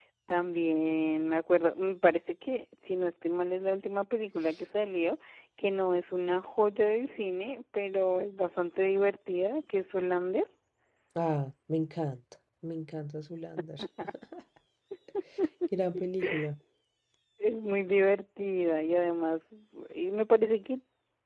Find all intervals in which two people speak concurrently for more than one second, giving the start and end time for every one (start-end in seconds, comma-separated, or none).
none